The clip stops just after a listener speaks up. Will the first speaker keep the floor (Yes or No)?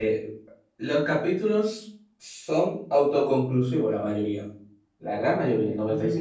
No